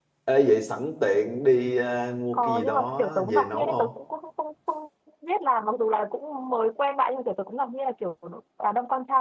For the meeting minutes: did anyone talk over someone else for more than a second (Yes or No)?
Yes